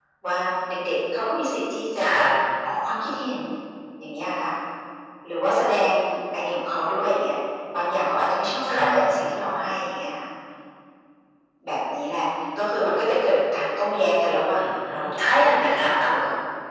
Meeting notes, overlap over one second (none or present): present